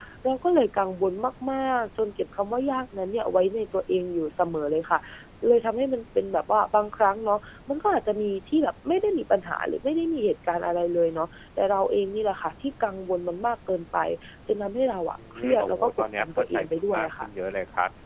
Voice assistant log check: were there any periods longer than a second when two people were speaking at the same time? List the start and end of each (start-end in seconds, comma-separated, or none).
15.3-17.3